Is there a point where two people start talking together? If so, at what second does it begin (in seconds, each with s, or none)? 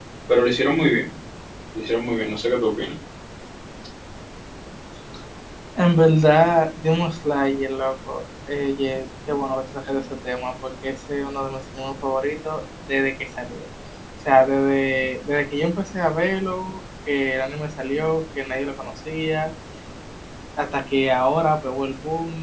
none